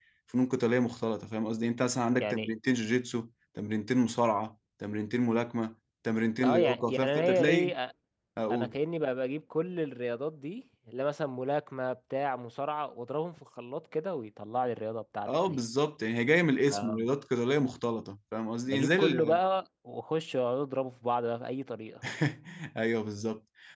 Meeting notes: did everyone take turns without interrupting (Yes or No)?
No